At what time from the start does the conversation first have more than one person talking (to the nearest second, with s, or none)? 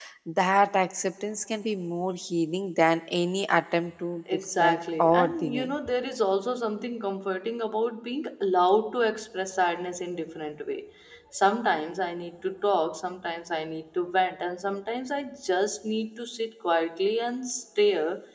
4 s